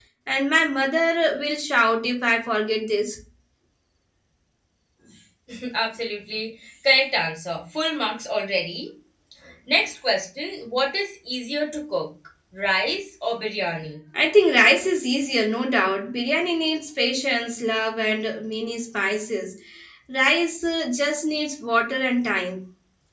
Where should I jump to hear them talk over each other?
none

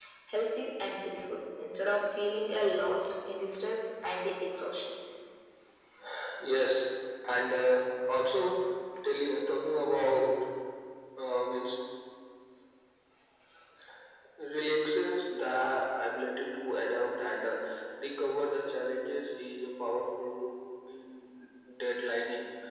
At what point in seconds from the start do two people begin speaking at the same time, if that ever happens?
none

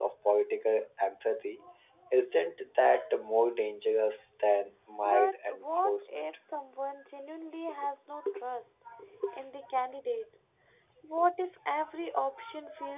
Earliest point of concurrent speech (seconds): 5.0 s

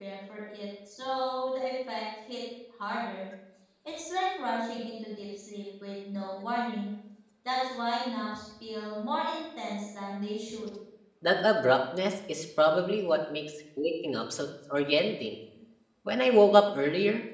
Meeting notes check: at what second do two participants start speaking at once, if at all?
none

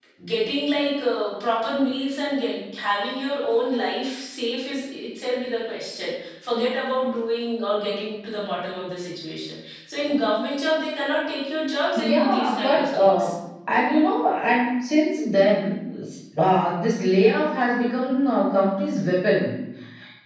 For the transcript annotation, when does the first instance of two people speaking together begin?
12.0 s

